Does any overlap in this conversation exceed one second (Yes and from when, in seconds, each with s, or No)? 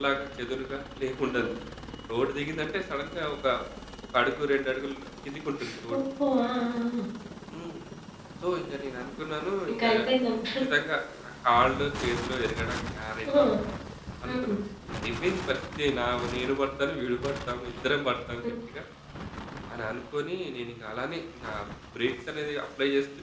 No